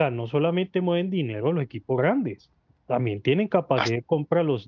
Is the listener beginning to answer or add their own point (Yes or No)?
No